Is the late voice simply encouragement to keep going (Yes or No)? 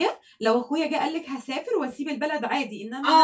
No